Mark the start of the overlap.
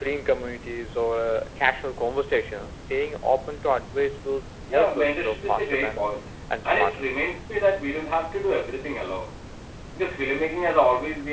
4.7 s

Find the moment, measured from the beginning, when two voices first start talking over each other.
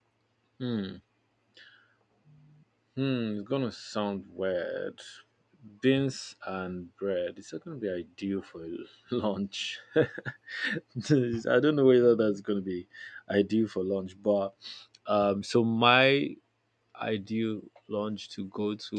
none

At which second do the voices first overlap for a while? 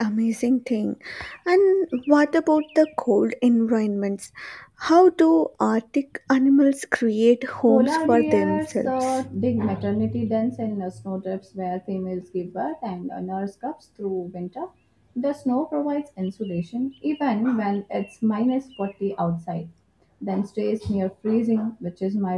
7.5 s

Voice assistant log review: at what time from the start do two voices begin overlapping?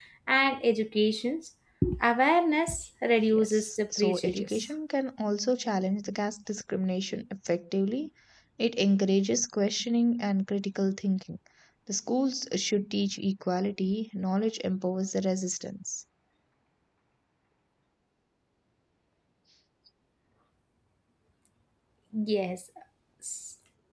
3.3 s

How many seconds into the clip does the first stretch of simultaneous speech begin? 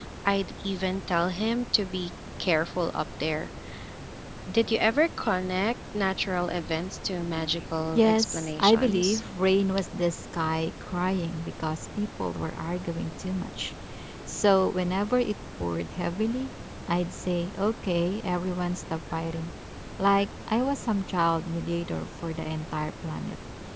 8.0 s

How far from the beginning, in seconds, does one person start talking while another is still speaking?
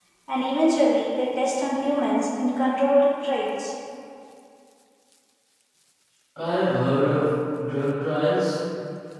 none

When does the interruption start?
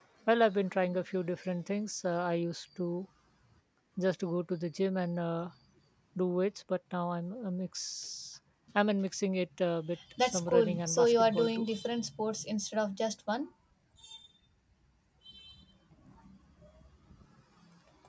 10.2 s

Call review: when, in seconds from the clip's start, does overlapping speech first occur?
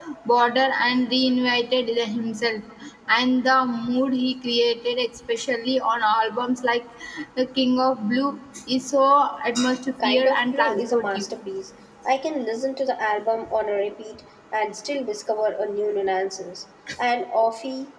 10.0 s

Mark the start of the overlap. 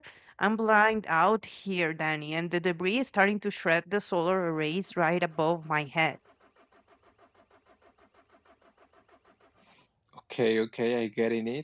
none

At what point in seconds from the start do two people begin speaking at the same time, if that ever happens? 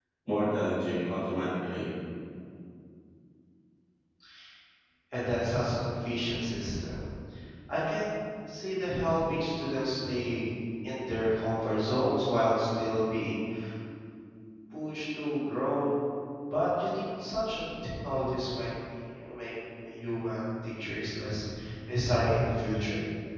none

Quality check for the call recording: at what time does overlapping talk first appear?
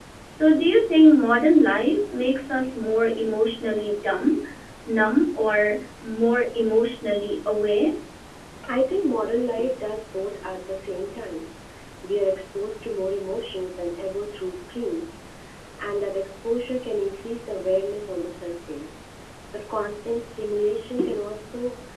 none

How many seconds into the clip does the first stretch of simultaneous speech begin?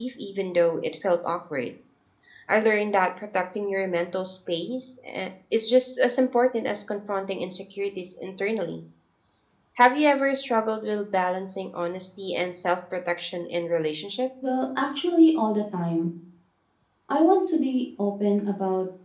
none

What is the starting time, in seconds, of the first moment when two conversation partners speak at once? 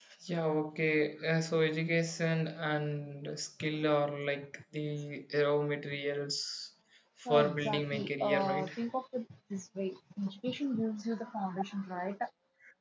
7.2 s

